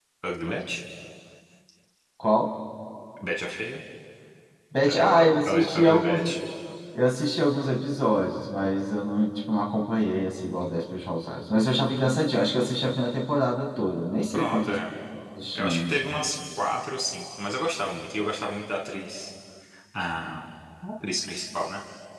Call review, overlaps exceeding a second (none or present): present